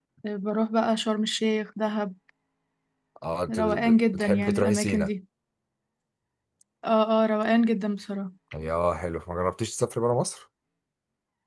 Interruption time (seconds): 3.5 s

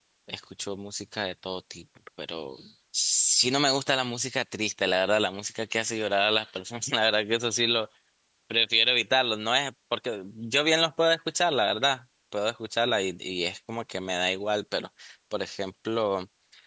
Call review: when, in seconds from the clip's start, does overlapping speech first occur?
none

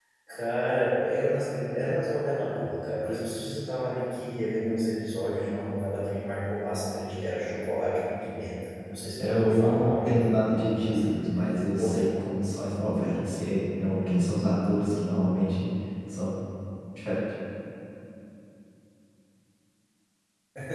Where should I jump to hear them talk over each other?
9.2 s

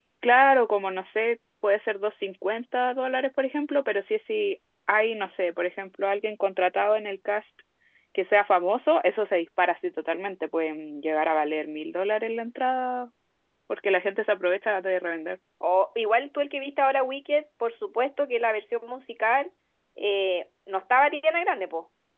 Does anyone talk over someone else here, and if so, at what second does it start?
none

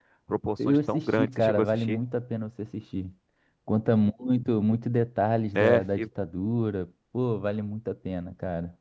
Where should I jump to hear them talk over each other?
0.7 s

